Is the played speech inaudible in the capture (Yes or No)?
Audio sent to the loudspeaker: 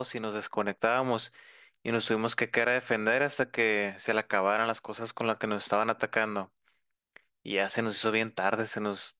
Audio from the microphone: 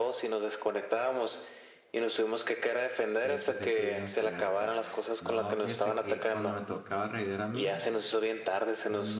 No